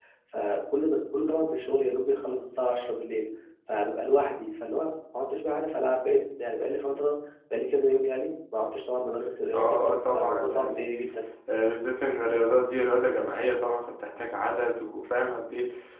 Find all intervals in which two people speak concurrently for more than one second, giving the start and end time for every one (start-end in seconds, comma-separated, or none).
9.5-10.9